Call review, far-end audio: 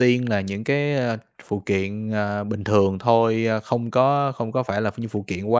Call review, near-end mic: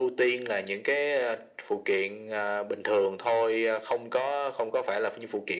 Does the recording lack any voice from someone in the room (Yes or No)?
Yes